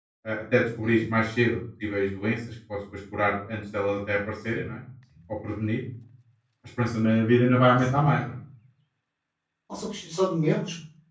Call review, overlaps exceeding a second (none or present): none